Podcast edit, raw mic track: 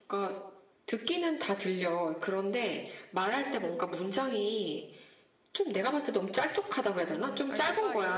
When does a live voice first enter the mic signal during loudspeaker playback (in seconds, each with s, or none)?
6.9 s